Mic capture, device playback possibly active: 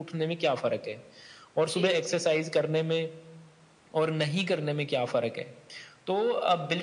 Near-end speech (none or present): present